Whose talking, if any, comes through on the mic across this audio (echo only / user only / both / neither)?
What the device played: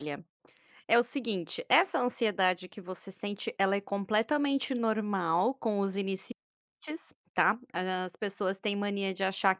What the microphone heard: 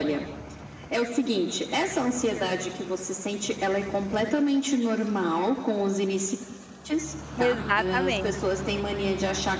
both